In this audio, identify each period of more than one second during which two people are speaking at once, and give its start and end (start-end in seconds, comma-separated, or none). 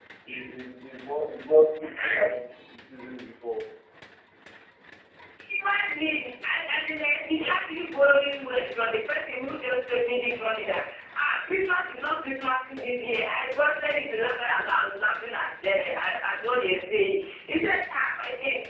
none